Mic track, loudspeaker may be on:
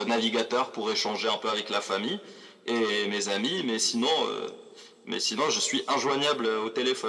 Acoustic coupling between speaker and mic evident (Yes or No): Yes